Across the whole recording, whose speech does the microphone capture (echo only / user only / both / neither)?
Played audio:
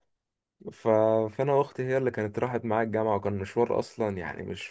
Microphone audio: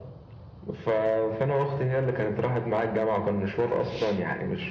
echo only